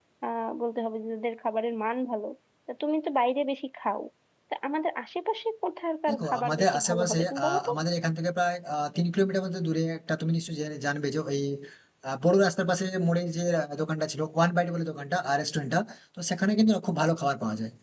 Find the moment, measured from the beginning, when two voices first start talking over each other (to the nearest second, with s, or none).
6 s